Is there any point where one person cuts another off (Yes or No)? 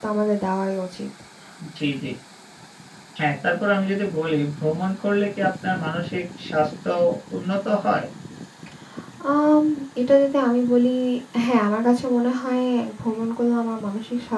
No